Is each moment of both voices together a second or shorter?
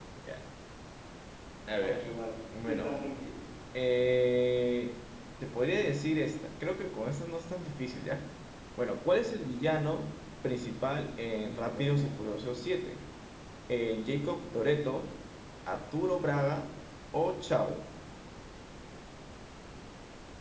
Yes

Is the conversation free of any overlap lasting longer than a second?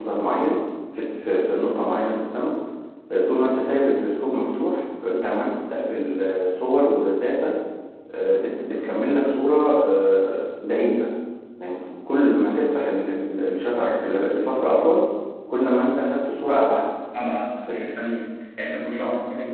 Yes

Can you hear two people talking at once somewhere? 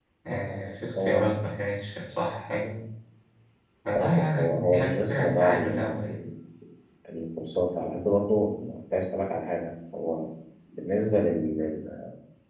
Yes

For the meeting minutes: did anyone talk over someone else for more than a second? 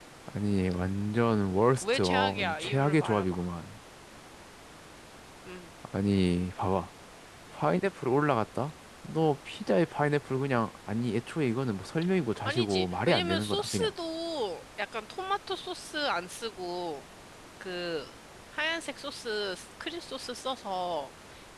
Yes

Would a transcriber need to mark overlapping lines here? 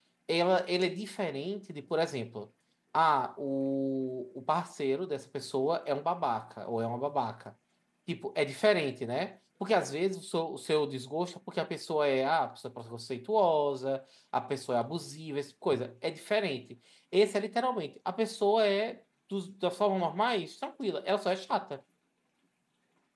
No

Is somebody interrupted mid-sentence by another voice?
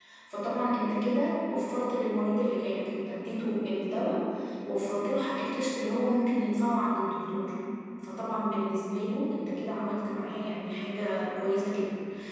No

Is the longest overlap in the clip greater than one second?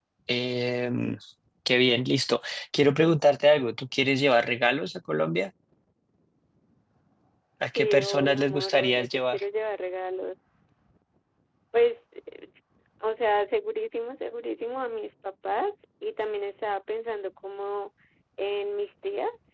Yes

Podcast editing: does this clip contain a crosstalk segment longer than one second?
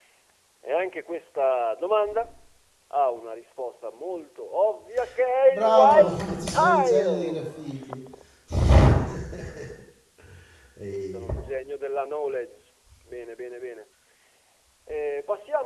Yes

